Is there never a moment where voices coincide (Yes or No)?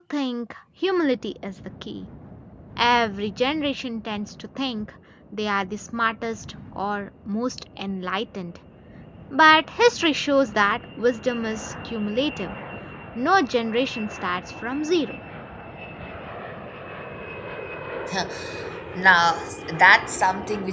Yes